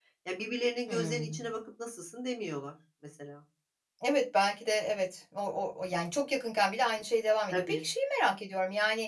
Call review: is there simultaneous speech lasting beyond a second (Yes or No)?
No